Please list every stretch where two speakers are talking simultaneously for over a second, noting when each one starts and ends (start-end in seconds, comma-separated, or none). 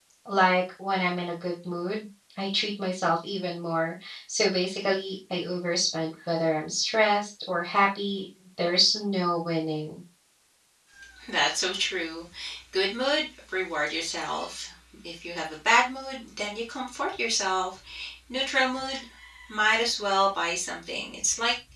none